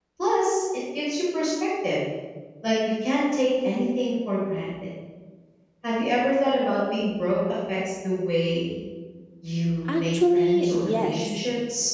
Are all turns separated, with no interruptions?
No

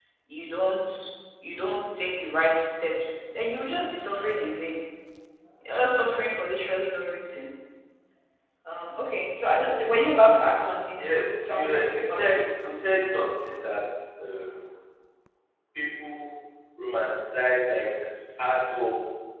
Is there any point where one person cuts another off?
Yes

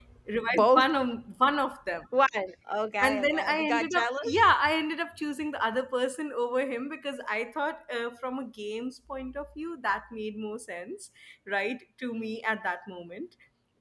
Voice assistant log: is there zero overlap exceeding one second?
No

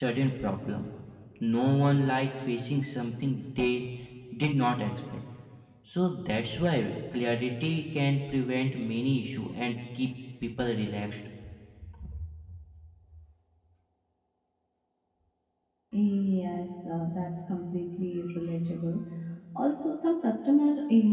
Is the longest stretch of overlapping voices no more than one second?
Yes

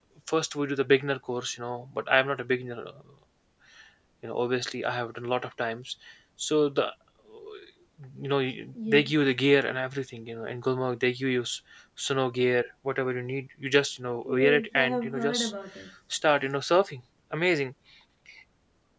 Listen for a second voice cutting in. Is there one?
Yes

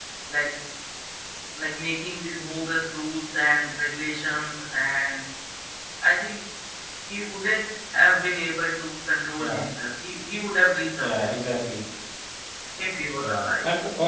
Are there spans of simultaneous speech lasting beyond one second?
No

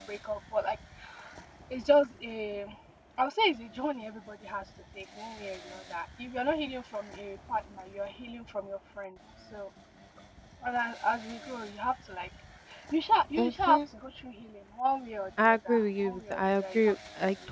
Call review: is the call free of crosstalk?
No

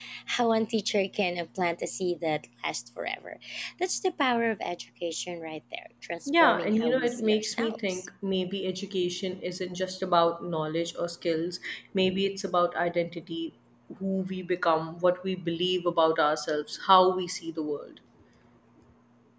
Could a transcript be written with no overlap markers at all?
No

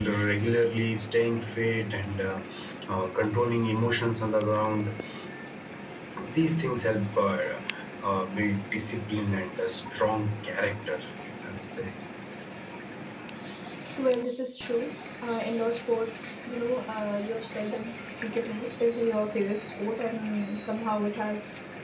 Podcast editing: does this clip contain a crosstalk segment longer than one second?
No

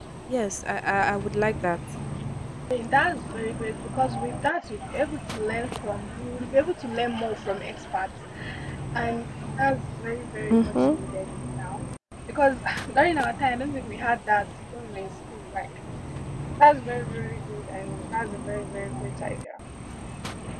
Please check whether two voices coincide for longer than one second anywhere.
No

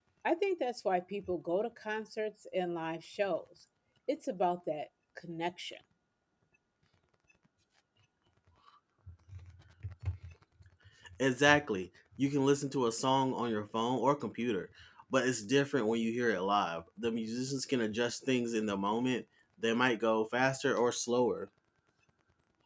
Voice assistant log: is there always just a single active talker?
Yes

